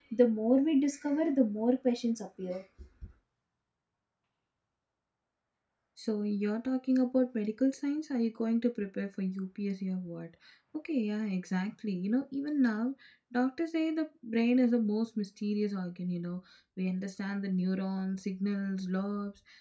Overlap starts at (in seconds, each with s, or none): none